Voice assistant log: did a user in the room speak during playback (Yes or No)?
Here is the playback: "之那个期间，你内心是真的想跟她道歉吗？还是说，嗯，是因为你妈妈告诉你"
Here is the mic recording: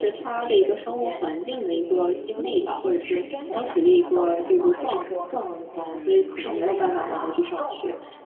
Yes